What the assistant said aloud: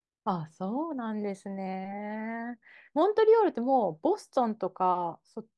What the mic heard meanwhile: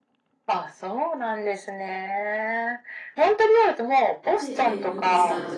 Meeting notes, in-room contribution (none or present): present